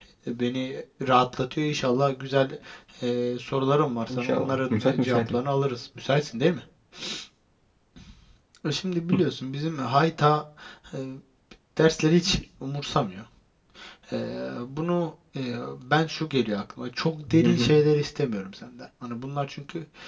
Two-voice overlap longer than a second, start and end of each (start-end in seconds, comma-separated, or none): 4.1-5.4